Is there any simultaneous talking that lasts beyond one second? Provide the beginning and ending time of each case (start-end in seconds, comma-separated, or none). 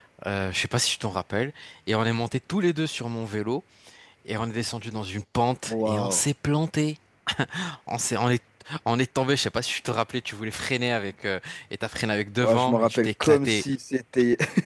12.4-13.6